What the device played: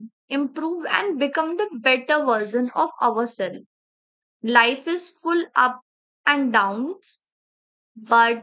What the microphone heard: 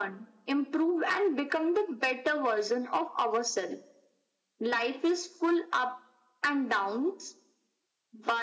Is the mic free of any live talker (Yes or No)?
Yes